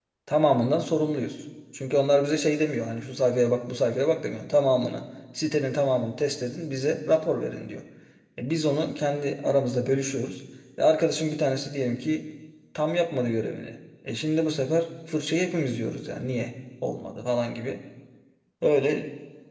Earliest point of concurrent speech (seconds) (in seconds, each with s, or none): none